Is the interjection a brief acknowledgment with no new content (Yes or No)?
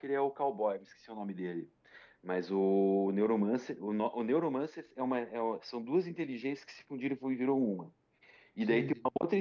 Yes